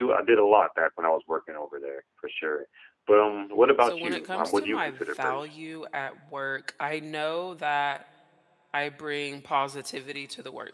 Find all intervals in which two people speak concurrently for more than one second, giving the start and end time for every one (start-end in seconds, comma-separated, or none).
3.8-5.6